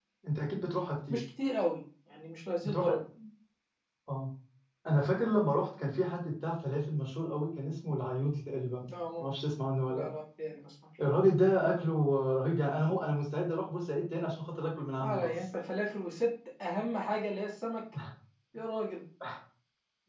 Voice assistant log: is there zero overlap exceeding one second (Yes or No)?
Yes